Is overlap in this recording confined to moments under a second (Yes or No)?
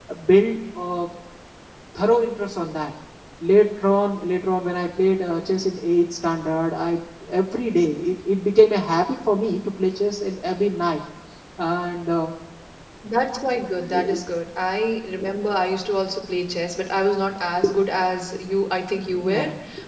Yes